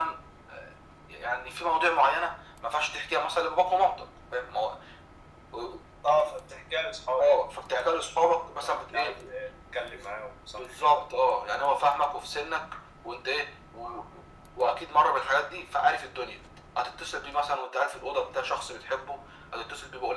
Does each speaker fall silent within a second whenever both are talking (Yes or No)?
No